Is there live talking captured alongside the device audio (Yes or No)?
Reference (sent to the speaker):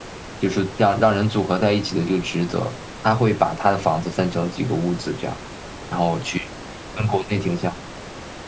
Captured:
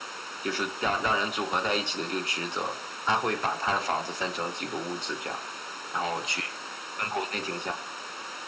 No